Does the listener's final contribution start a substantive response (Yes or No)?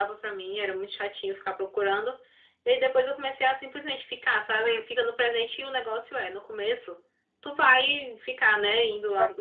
No